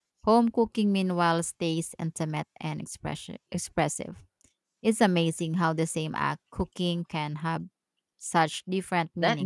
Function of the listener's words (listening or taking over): taking over